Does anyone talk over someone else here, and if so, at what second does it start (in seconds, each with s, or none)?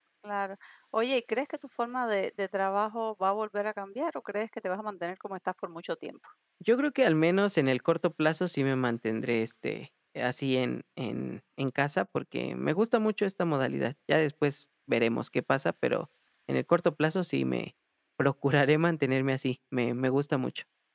none